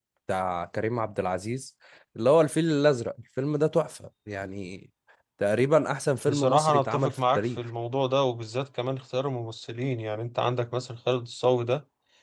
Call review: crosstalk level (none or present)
present